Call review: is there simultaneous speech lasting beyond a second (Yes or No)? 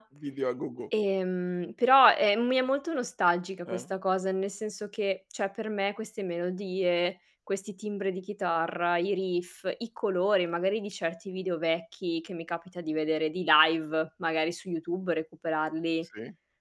No